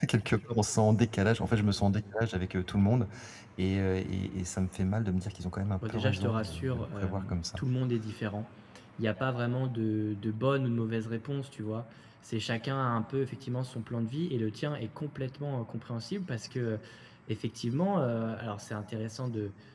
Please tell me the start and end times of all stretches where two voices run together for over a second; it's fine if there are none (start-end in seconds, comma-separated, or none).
5.8-7.6